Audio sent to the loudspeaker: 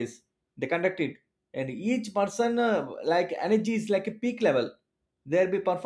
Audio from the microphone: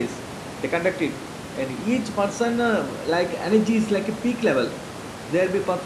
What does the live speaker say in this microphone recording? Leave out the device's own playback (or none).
none